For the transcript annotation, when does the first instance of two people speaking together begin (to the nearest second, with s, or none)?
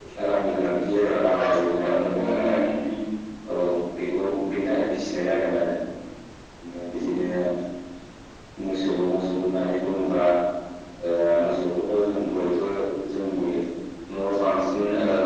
1 s